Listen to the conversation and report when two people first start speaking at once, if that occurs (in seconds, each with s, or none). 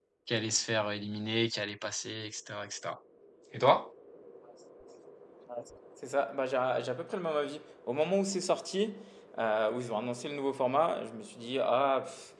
none